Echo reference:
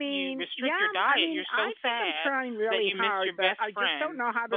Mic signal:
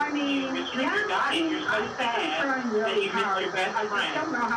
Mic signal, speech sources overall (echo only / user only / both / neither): echo only